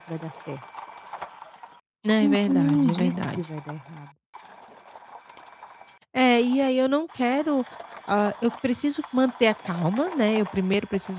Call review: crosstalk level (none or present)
present